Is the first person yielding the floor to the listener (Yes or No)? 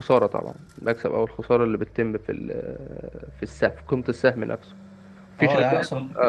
Yes